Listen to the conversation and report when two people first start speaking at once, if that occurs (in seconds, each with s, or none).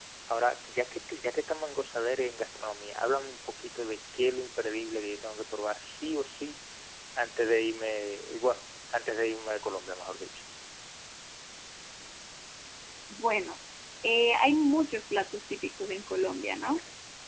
none